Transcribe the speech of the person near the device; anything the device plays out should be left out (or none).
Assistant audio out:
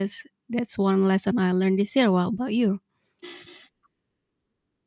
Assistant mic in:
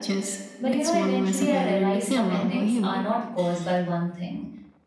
But you know, eventually I realized some endings are not caused by one thing.